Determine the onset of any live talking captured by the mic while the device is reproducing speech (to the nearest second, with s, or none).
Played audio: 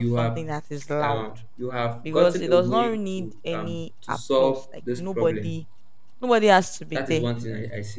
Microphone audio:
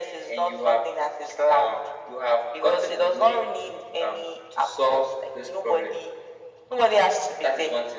none